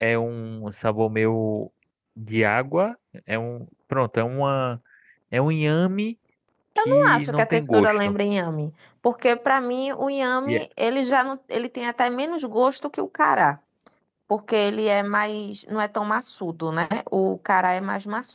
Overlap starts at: 6.8 s

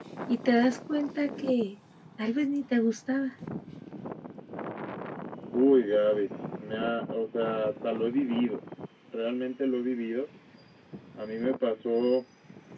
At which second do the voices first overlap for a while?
none

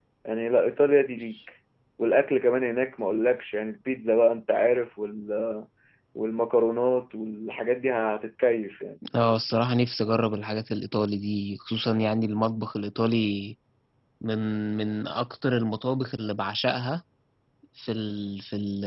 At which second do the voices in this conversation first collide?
none

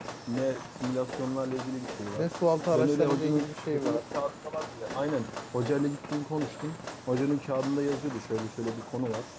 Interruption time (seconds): 2.7 s

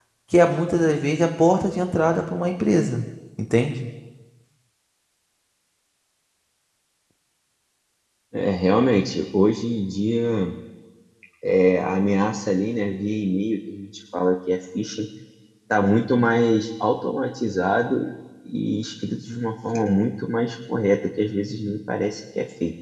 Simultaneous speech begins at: none

